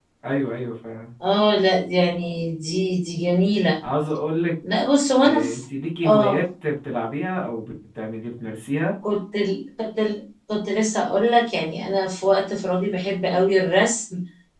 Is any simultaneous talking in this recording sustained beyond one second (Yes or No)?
No